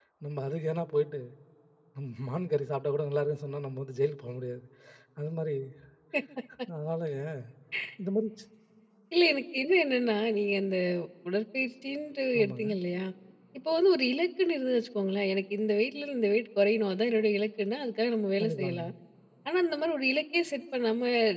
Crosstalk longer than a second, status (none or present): none